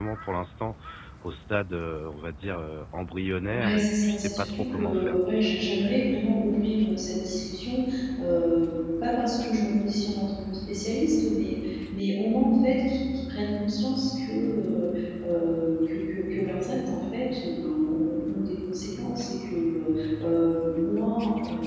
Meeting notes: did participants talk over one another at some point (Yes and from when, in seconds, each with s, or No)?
Yes, from 3.5 s